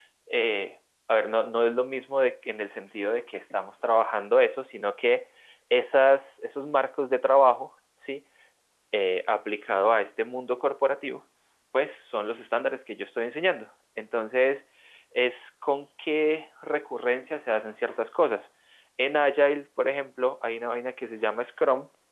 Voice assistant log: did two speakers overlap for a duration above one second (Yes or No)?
No